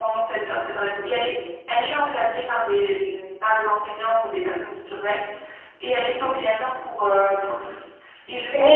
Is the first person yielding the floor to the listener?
Yes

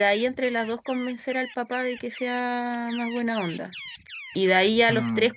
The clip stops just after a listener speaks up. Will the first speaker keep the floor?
Yes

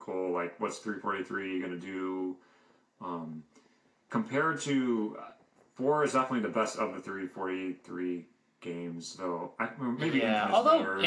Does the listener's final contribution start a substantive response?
Yes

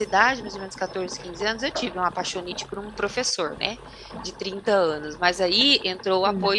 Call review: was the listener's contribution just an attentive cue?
Yes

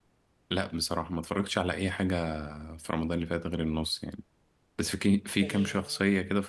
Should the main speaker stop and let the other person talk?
No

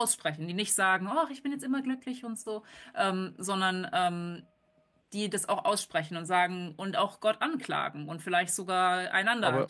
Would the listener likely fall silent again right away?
No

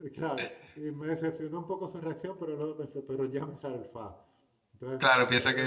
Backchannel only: No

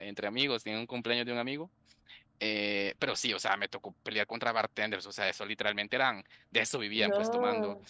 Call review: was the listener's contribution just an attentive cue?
Yes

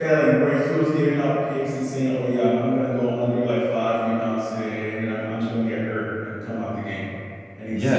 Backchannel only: No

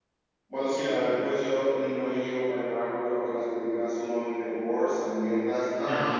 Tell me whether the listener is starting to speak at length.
No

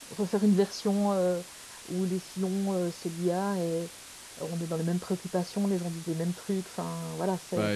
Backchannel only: Yes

